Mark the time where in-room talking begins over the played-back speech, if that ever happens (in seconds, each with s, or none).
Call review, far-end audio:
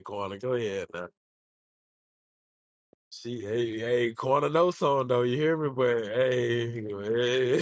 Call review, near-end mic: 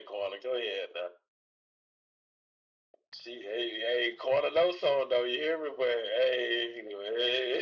none